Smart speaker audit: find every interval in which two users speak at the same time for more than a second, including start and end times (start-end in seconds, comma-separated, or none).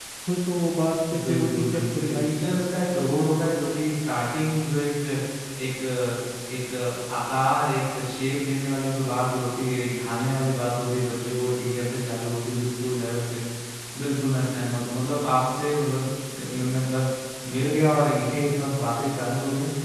1.3-2.6